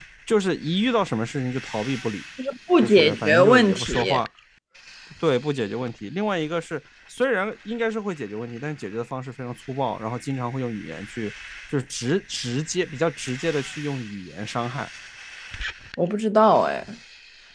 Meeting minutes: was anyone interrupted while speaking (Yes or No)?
Yes